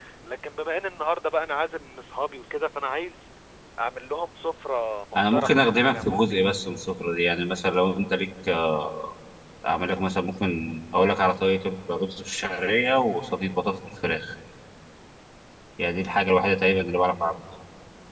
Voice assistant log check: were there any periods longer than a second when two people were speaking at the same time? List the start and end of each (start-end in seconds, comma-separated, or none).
5.2-6.4